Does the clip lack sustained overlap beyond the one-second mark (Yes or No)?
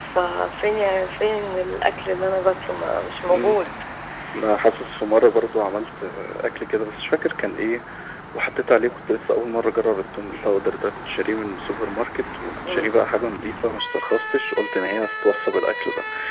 Yes